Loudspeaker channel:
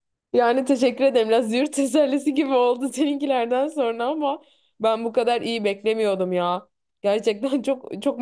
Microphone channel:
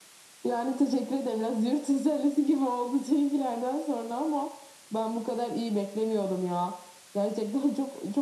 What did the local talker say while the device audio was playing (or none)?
none